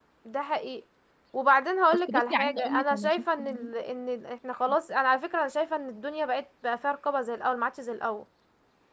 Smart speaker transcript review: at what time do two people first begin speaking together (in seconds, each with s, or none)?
2.1 s